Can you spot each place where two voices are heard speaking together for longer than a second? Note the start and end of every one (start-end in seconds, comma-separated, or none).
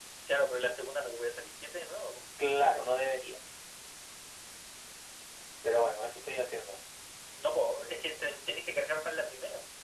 none